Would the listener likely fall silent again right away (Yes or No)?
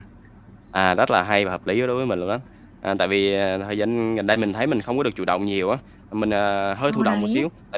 Yes